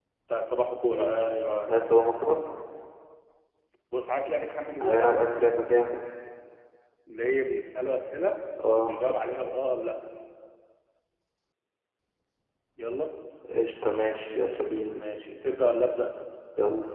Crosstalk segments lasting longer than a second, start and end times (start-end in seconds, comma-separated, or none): none